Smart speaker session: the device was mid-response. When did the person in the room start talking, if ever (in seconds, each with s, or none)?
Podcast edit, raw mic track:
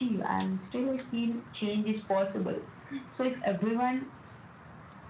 none